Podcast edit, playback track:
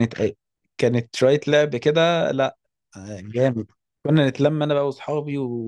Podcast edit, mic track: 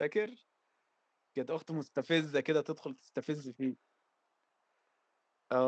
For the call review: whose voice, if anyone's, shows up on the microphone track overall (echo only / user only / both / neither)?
user only